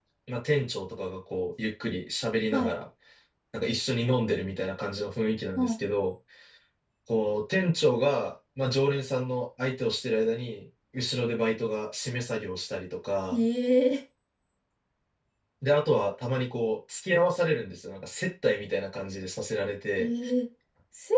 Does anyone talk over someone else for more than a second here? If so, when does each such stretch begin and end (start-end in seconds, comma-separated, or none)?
none